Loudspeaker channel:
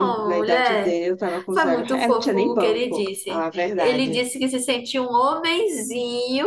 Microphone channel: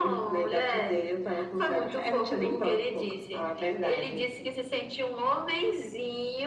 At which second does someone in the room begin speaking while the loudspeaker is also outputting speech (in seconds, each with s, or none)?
none